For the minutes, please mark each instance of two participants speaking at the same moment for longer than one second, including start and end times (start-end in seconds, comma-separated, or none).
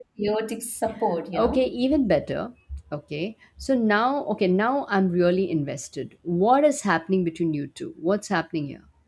none